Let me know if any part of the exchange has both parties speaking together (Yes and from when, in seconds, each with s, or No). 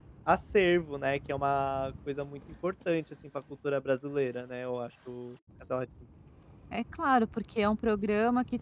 No